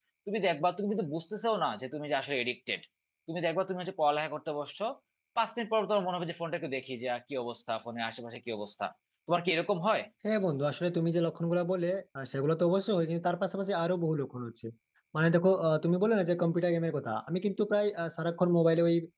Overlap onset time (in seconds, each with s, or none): none